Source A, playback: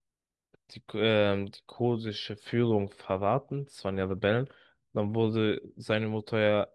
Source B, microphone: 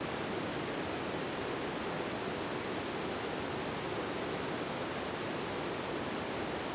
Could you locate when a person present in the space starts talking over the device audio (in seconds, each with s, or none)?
none